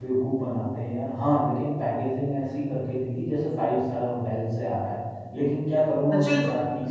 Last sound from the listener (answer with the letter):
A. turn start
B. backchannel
A